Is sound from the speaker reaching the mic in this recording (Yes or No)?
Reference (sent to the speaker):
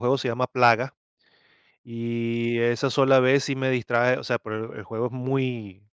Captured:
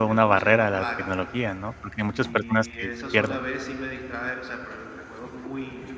Yes